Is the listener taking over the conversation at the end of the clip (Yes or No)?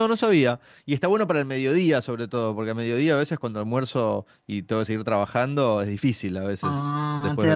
Yes